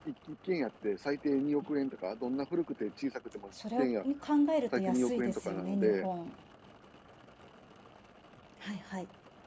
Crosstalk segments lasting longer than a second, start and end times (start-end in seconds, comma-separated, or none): 4.7-6.1